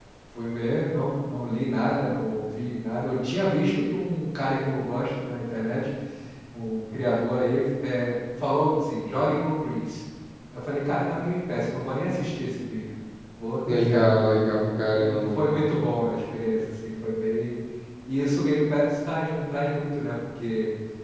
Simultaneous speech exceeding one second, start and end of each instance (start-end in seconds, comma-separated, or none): none